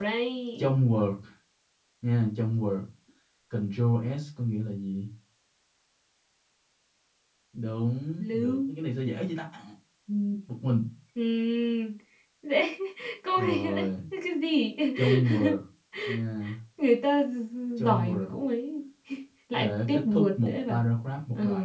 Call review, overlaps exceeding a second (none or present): present